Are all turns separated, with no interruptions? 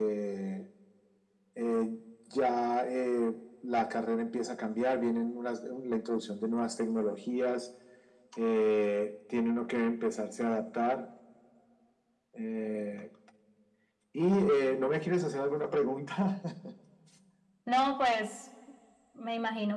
Yes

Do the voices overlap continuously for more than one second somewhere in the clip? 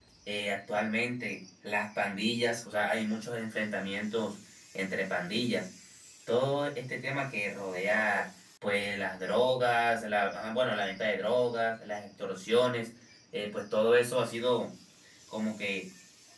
No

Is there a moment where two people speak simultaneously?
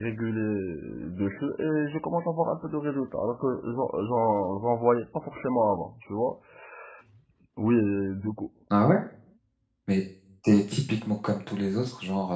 No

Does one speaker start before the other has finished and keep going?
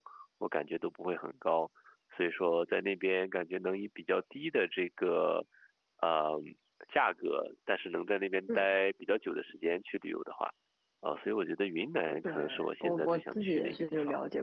Yes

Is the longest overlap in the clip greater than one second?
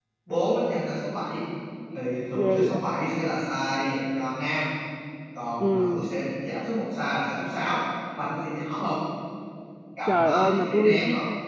Yes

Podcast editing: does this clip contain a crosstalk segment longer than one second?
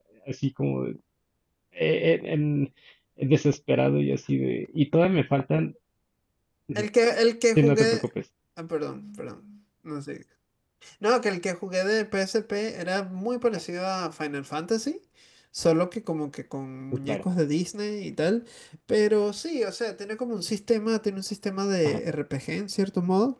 No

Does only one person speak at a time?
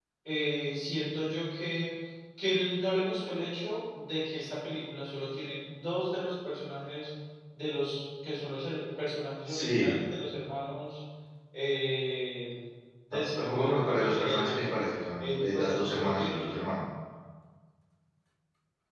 No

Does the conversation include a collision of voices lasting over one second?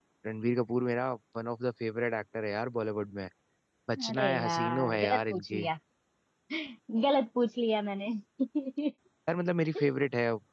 Yes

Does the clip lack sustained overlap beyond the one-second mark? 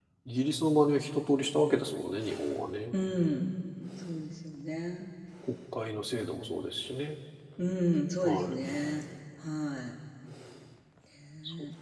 Yes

